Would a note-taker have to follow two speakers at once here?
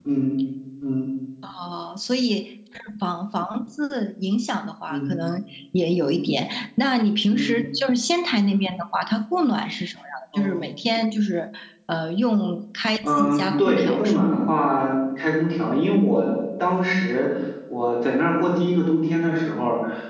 Yes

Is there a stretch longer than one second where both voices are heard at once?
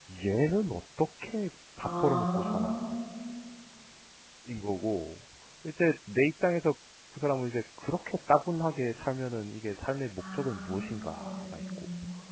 Yes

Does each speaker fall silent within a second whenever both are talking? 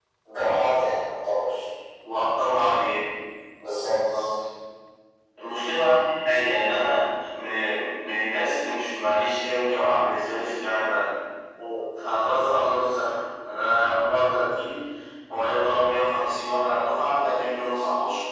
Yes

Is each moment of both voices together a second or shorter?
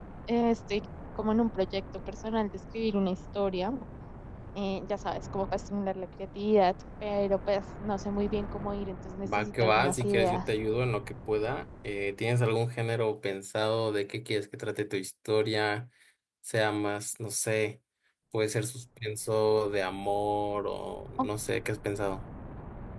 No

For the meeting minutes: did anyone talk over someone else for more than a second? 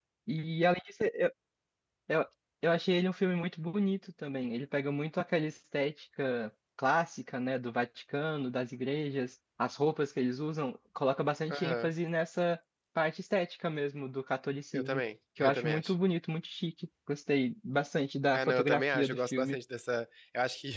Yes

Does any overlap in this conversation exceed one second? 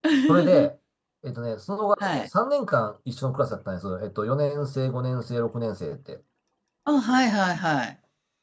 No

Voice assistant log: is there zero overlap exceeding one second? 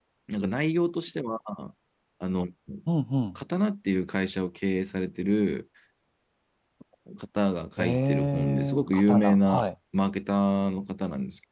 No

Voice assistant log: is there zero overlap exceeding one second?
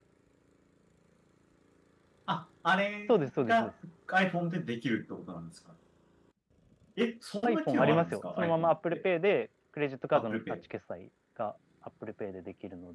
No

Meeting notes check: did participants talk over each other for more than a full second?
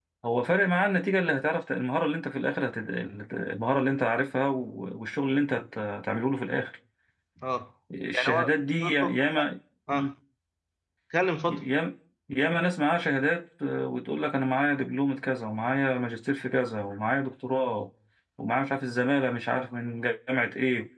Yes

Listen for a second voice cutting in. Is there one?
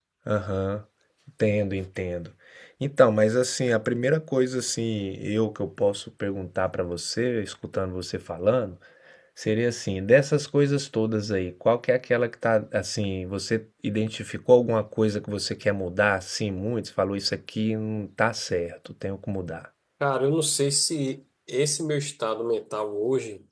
No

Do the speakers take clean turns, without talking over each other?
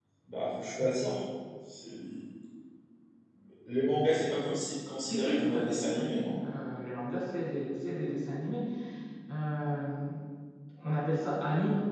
No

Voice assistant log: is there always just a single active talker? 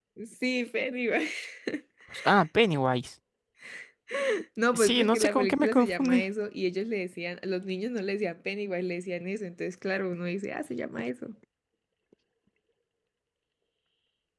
No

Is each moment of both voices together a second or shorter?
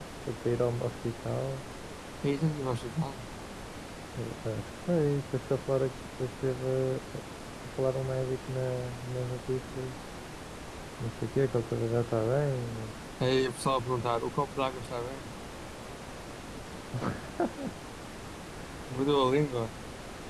Yes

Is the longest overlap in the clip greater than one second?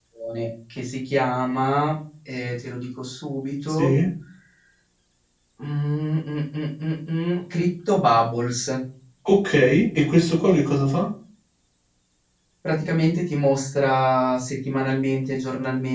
No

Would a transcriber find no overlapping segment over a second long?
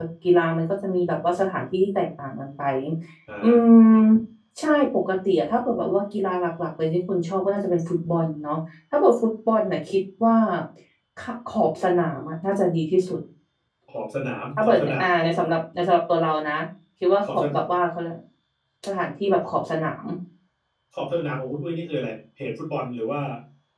Yes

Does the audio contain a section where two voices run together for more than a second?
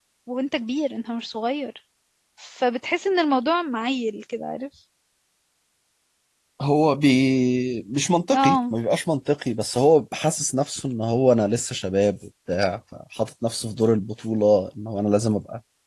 No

